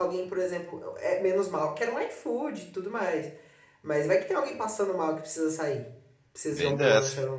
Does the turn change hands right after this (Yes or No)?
Yes